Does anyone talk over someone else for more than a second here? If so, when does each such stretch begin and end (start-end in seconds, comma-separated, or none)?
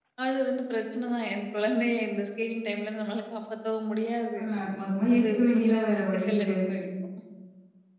5.2-6.7